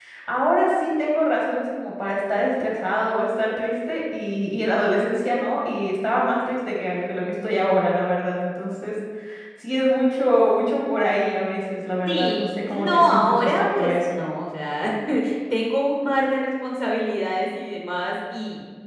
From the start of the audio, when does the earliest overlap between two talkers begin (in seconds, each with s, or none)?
12.1 s